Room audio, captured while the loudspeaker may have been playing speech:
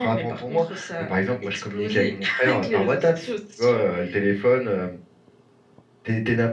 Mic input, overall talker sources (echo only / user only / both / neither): echo only